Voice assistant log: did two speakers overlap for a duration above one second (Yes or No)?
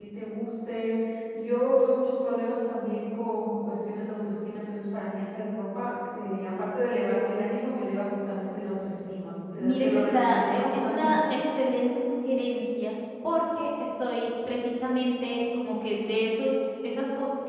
Yes